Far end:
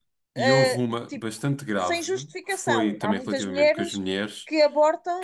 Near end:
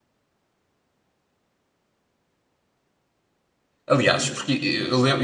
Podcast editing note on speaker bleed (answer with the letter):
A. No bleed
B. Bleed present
A